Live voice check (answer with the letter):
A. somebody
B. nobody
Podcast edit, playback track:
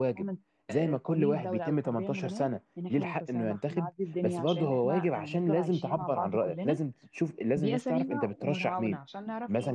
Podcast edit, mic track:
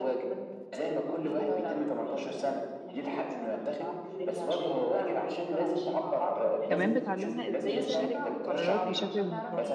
A